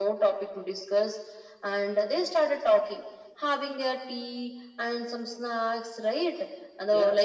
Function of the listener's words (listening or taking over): listening